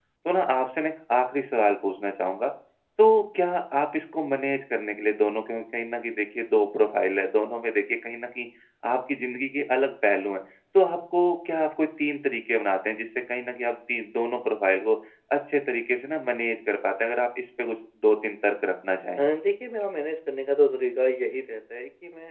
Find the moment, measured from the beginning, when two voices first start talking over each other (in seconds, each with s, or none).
none